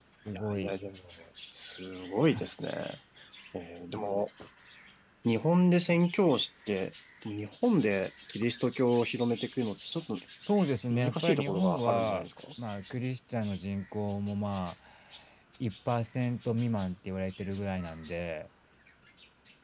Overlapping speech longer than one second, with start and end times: 10.9-12.2

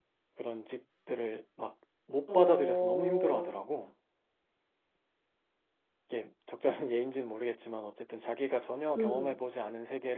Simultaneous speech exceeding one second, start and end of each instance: 2.3-3.5

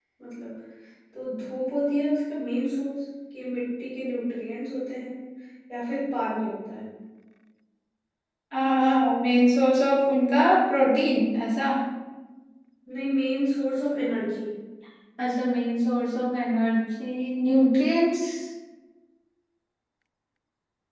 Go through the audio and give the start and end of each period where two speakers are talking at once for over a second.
none

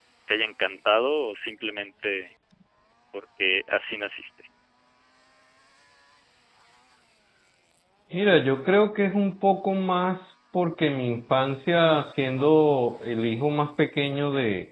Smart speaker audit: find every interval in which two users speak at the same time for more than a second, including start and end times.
none

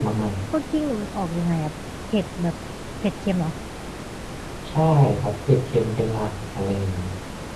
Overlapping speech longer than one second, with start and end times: none

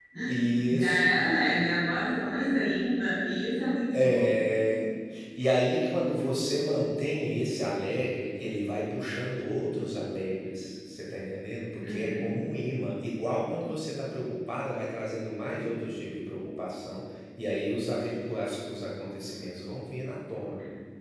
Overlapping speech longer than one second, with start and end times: none

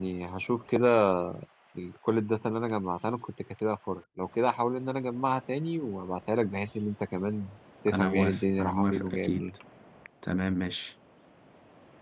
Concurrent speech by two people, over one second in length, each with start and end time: 7.9-9.4

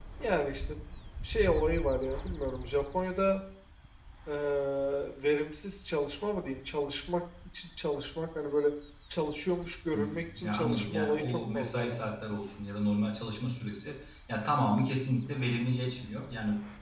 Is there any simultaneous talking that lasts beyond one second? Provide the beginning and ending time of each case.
9.9-12.0

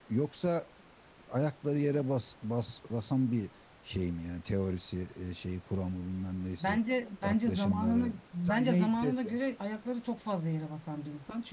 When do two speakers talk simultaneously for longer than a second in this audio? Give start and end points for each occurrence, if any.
7.2-9.4

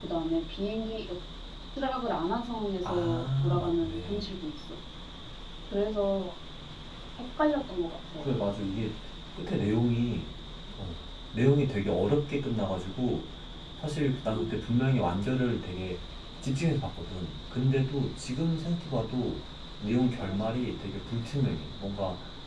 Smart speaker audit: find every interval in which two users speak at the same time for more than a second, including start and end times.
2.8-4.3

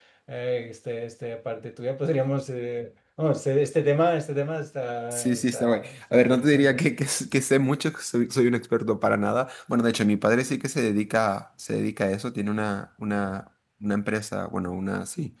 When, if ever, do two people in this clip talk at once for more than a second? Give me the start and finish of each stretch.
5.1-6.8

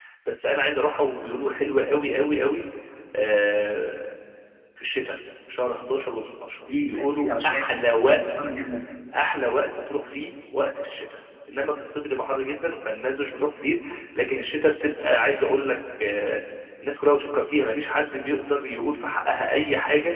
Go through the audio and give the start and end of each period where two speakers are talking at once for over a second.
6.9-8.2

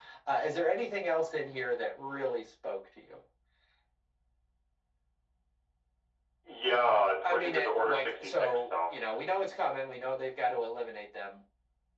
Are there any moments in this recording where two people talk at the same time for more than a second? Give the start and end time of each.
7.2-8.9

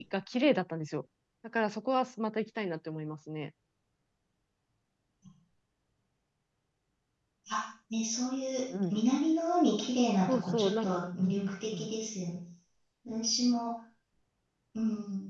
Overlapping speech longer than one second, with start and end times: 10.3-11.9

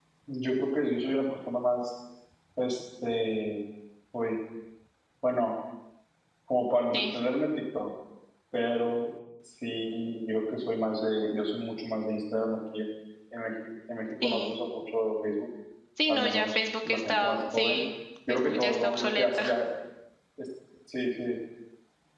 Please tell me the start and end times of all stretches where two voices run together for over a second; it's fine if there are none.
16.1-17.8, 18.3-19.5

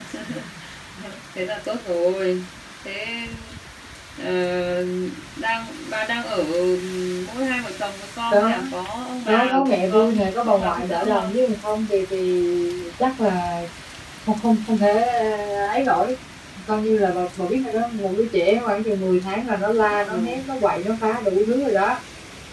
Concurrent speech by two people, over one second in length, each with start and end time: 9.3-11.4

